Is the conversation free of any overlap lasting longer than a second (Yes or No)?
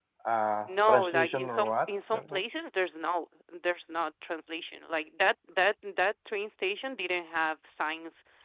No